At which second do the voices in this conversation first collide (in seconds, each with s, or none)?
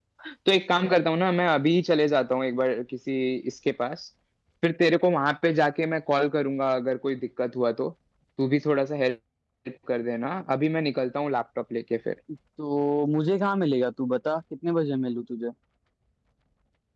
none